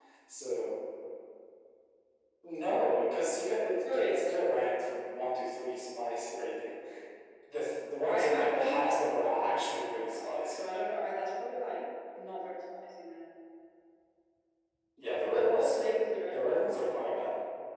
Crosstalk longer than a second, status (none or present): present